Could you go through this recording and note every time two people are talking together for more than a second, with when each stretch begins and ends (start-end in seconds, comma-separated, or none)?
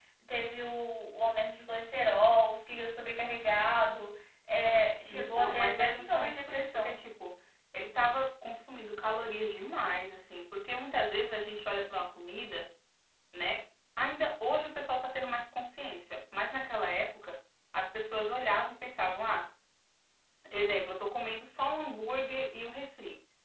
5.1-7.0